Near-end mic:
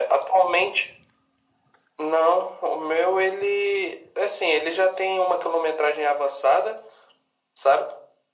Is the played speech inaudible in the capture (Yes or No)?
No